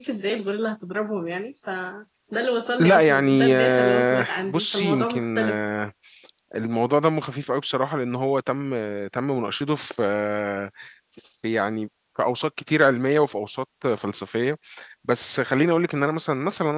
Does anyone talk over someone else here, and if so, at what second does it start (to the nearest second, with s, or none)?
3 s